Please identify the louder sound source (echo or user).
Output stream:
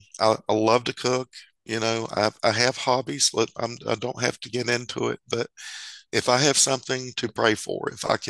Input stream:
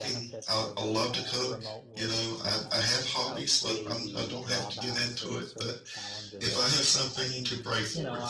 echo